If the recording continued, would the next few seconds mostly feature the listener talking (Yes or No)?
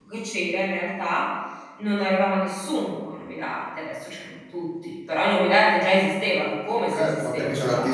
Yes